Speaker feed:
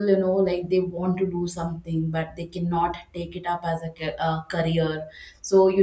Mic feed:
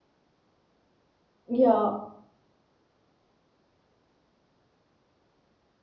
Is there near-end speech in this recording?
Yes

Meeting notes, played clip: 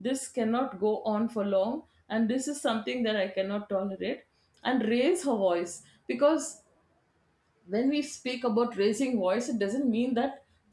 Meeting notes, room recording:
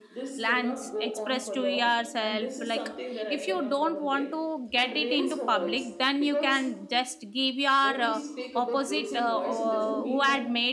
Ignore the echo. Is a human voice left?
Yes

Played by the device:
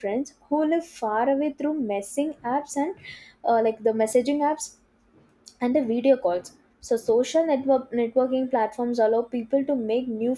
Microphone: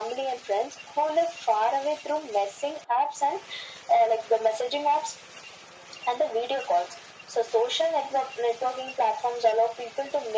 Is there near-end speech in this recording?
No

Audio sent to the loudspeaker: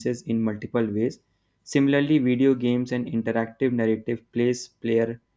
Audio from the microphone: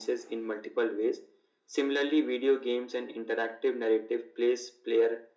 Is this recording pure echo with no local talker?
Yes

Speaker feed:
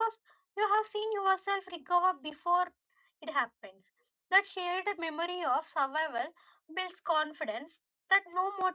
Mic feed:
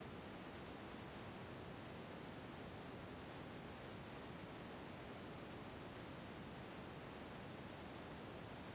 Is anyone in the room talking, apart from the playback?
No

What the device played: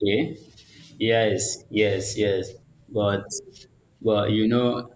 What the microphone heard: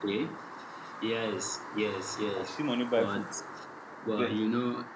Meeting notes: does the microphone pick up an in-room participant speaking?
Yes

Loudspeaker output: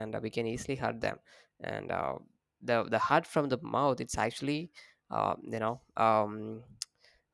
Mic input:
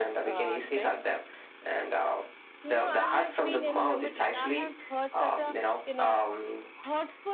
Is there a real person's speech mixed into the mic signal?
Yes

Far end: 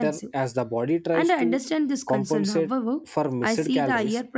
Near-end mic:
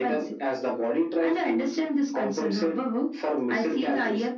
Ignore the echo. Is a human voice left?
No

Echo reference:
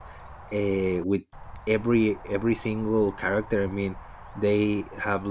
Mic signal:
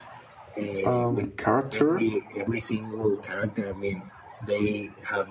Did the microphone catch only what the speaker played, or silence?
No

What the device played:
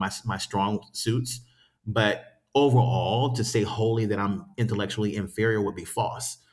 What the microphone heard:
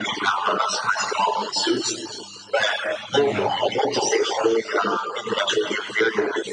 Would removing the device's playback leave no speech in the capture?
No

